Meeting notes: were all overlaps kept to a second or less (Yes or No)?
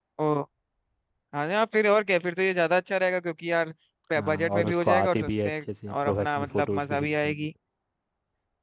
No